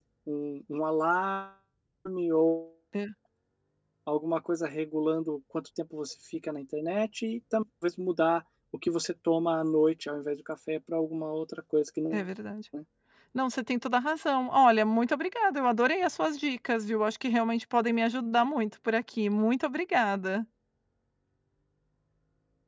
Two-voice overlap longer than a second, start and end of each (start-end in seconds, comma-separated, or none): none